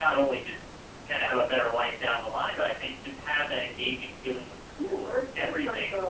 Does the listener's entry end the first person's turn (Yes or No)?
Yes